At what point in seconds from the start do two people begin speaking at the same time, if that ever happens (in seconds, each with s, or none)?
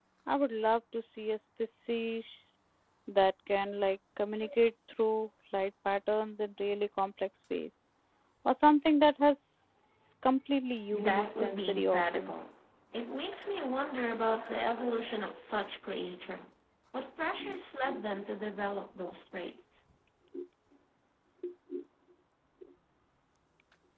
11.0 s